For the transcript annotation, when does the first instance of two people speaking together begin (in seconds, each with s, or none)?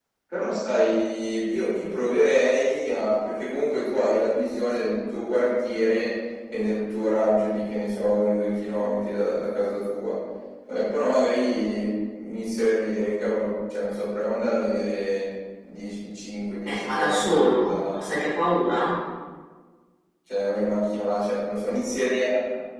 16.6 s